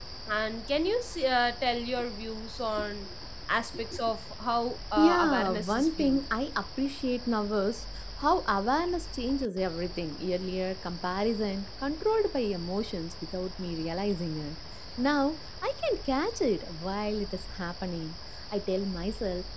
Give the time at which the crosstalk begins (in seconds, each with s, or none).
5.0 s